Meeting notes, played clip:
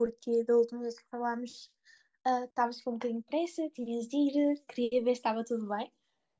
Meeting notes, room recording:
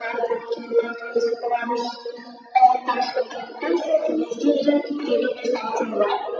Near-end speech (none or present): none